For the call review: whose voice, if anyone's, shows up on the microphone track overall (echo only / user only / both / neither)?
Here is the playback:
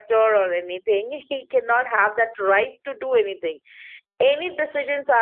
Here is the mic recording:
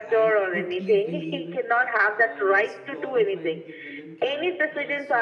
both